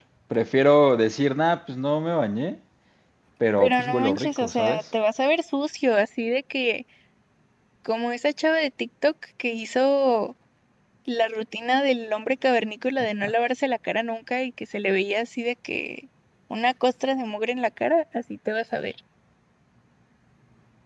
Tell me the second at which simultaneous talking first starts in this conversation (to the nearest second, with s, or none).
4 s